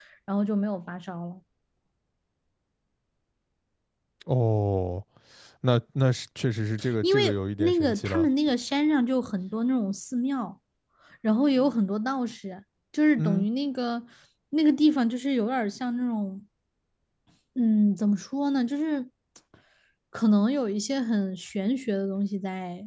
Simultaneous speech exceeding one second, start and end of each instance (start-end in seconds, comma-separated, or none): 7.0-8.3